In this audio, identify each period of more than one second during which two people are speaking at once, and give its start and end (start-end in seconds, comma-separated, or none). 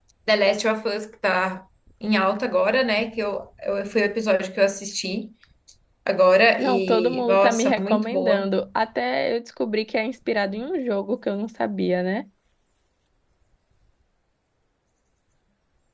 6.6-8.5